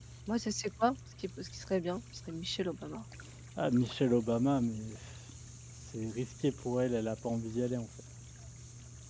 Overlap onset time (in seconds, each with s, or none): none